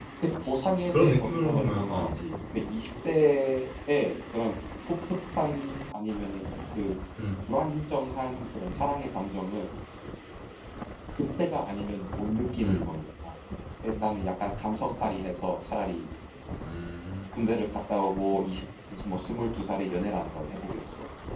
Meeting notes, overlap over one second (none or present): present